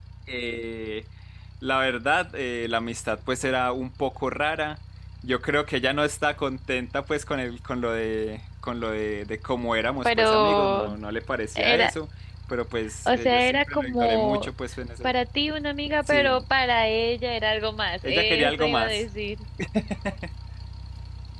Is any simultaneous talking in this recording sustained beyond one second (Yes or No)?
Yes